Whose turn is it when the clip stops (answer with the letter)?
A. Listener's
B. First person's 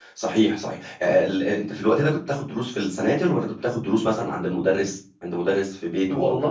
A